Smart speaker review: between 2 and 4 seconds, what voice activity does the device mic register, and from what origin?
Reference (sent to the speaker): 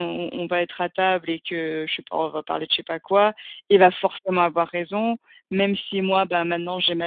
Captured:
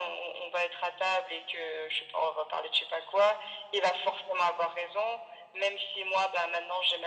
echo only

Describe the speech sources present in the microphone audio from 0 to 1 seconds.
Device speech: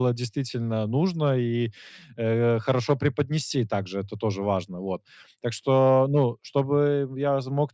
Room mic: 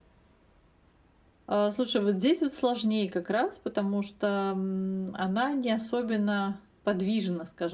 neither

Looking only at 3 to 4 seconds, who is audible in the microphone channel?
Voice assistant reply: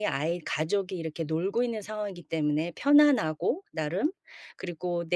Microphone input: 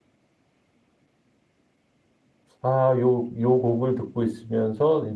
user only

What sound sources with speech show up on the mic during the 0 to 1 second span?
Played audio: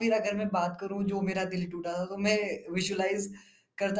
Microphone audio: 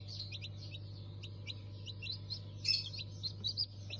neither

